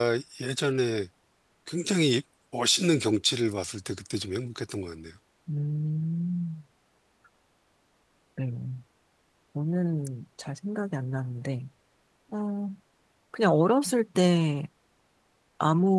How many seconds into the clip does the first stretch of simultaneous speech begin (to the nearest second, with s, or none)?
none